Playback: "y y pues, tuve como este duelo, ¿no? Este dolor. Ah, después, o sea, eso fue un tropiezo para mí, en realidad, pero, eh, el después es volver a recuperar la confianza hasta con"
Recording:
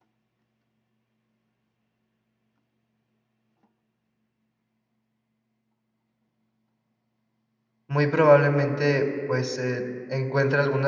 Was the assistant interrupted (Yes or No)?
Yes